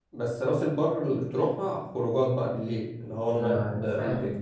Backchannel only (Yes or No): No